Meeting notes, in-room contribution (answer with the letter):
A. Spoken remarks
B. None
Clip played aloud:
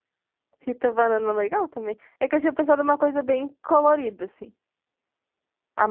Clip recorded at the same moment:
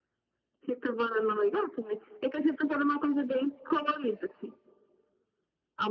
B